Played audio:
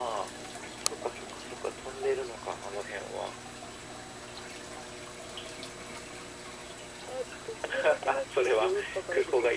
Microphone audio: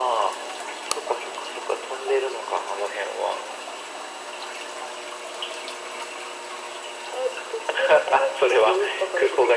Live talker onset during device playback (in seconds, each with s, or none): none